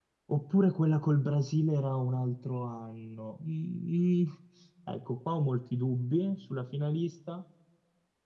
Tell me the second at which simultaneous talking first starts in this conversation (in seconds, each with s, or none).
none